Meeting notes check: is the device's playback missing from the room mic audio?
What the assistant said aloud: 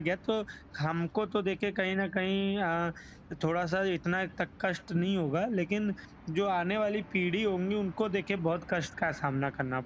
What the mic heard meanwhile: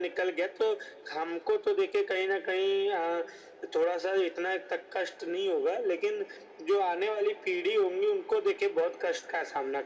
No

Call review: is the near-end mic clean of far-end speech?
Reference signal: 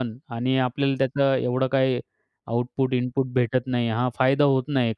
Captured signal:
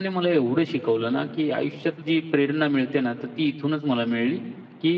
Yes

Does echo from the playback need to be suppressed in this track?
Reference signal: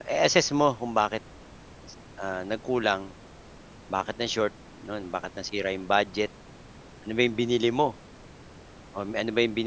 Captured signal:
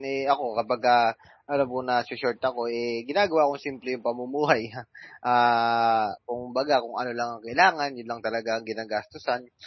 No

